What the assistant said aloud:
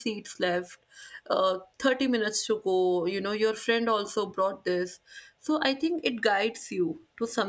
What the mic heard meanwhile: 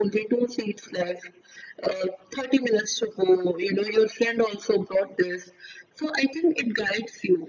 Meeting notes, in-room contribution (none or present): none